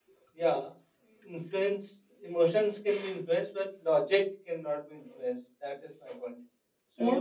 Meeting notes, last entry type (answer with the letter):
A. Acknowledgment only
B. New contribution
B